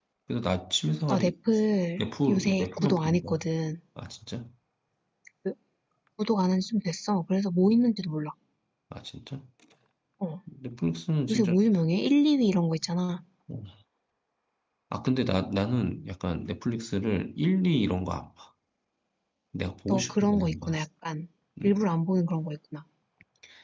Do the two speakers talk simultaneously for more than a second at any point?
Yes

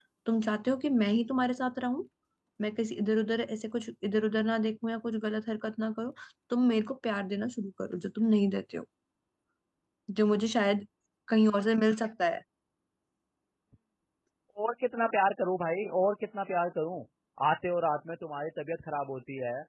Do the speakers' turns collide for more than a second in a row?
No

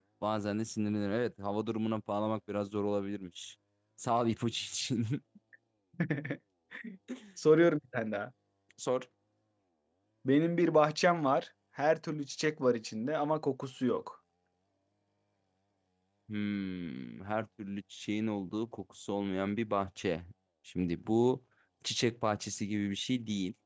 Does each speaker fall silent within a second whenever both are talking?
Yes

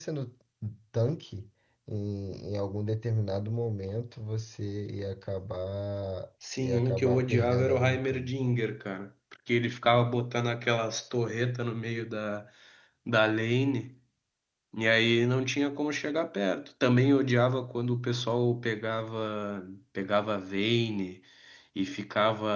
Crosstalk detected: Yes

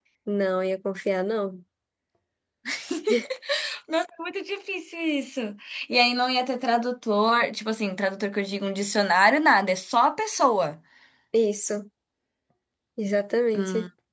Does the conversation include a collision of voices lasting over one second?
No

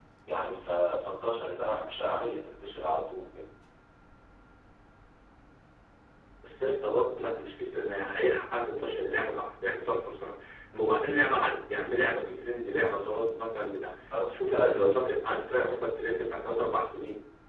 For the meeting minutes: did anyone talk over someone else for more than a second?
Yes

